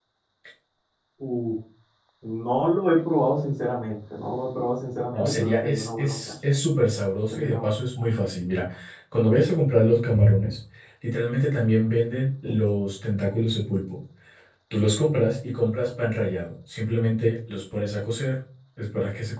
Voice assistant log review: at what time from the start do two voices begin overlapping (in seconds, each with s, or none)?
5.1 s